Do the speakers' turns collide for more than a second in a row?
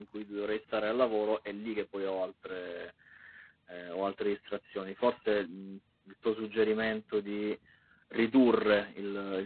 No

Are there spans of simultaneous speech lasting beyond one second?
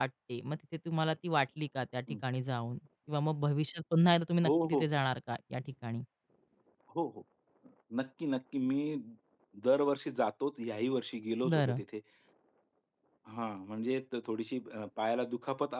No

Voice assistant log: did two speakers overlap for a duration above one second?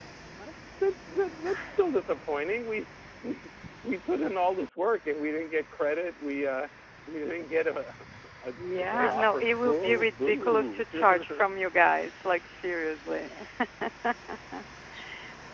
Yes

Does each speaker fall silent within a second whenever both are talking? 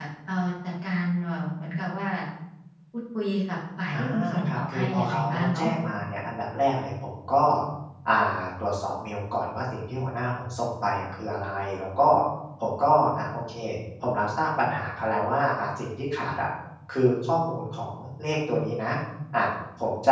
No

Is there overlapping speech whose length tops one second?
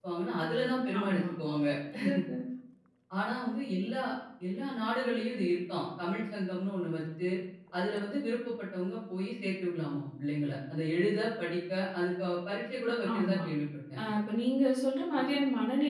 No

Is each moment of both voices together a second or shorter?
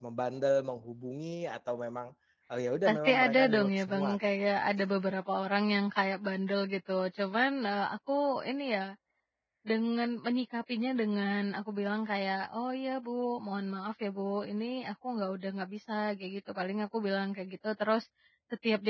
No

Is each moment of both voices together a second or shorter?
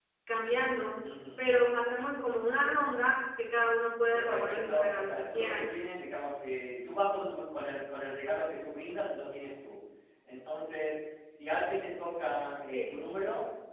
No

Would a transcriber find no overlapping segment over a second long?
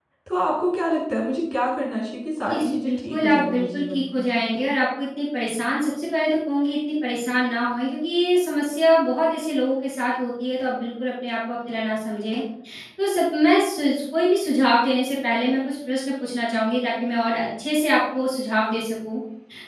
No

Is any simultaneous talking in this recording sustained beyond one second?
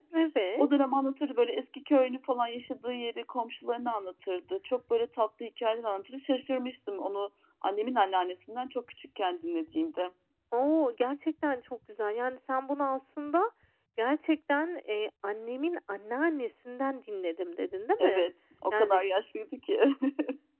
No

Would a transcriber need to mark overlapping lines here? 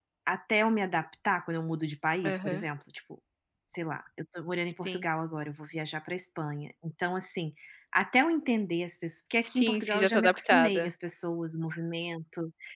Yes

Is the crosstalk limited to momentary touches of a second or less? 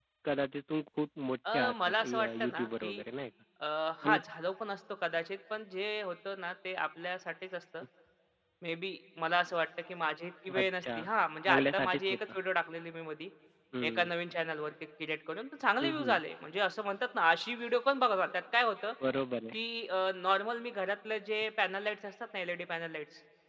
No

